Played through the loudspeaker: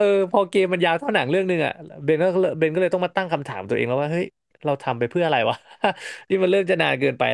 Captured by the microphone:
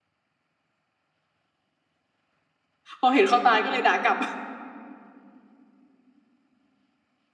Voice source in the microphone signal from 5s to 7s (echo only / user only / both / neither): neither